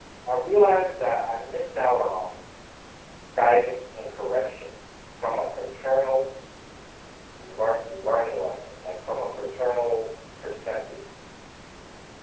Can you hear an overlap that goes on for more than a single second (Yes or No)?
No